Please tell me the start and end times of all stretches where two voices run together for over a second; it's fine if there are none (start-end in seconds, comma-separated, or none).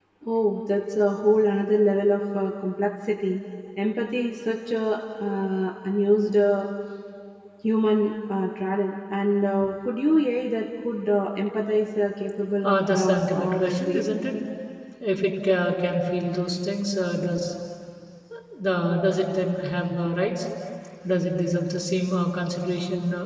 12.6-14.0